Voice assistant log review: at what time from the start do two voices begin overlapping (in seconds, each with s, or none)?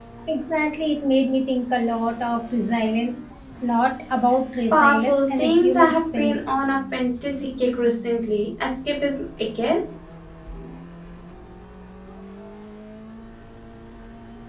4.7 s